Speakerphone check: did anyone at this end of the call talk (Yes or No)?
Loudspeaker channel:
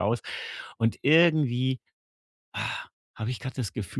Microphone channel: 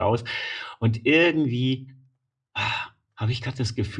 No